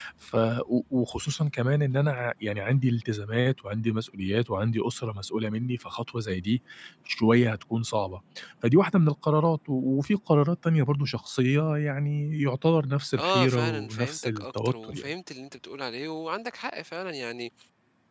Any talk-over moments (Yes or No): Yes